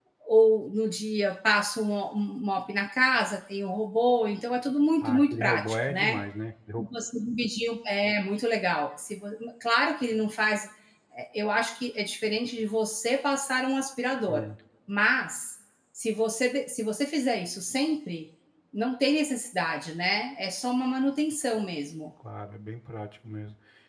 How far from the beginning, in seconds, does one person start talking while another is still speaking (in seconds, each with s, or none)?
5.0 s